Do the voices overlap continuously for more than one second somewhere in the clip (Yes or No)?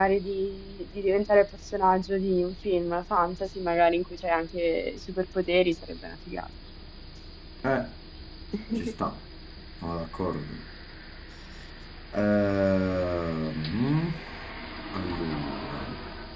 No